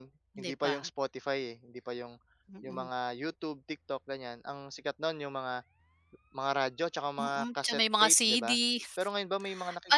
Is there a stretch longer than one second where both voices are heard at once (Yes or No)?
Yes